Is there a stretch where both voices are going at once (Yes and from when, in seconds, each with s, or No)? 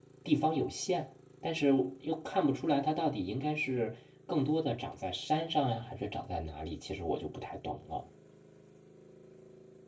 No